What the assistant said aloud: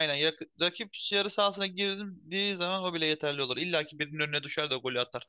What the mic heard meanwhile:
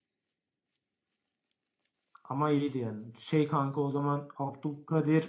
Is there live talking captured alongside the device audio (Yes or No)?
Yes